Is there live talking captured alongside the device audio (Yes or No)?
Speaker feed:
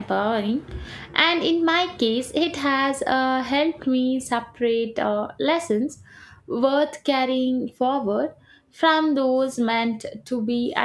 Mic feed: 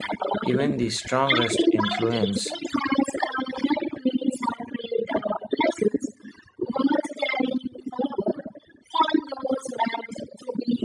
Yes